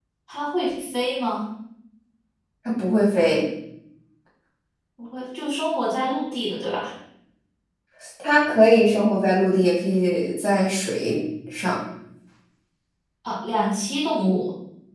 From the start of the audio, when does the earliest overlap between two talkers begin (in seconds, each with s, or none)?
none